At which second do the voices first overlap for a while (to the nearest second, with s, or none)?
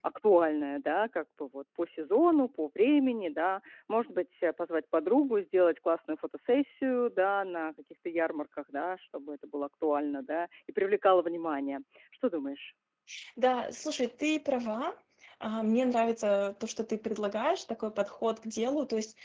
none